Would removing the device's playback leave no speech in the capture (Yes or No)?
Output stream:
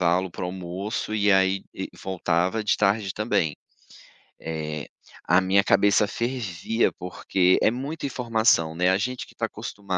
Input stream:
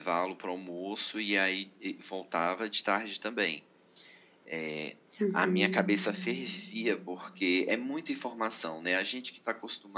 No